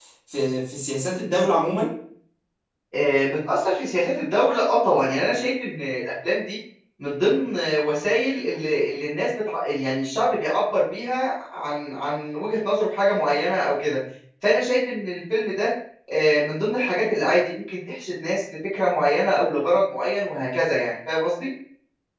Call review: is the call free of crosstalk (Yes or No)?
Yes